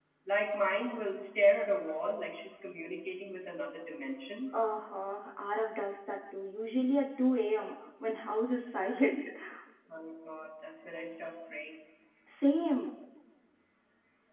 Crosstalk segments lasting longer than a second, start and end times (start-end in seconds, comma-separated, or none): none